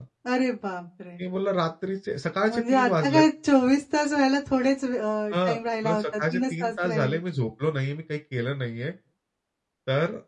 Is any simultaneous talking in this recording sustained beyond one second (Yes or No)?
Yes